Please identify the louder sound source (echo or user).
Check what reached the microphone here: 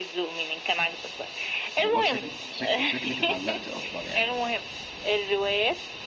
echo